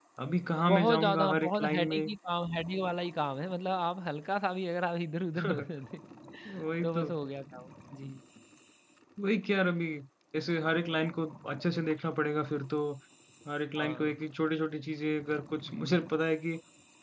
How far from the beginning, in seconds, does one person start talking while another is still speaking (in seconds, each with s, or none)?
0.7 s